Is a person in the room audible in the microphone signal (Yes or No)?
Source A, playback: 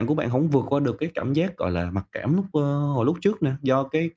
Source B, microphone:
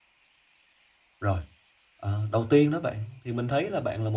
Yes